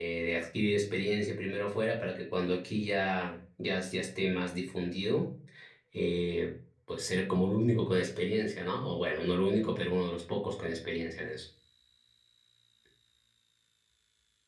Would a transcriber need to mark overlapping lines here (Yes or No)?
No